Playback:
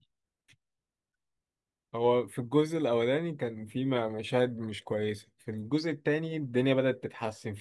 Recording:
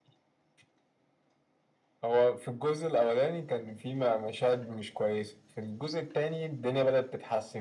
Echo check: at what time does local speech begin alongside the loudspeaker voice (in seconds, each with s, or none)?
none